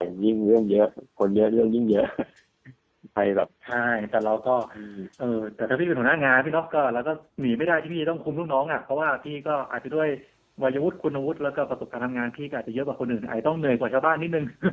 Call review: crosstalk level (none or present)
none